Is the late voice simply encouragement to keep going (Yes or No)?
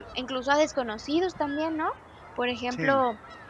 Yes